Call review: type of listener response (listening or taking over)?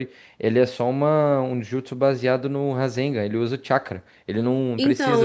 taking over